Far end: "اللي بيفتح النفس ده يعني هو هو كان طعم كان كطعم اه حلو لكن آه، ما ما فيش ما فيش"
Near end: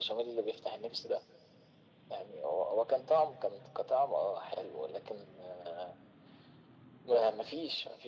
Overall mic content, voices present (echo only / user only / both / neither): echo only